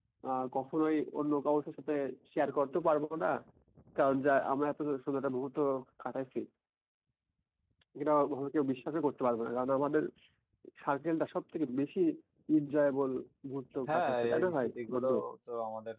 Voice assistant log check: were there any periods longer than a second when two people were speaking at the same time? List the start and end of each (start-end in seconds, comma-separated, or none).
13.9-15.1